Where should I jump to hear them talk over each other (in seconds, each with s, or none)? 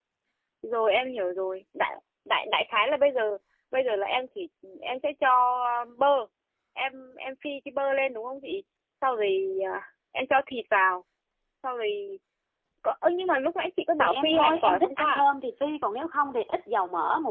14.0 s